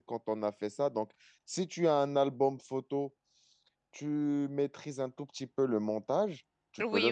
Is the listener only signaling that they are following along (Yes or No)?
No